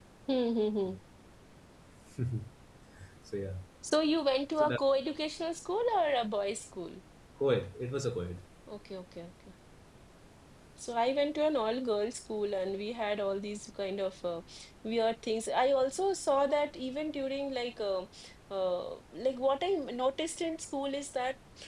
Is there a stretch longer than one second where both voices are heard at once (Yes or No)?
No